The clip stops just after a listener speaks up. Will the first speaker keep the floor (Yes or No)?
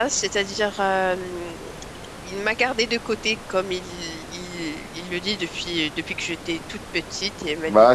No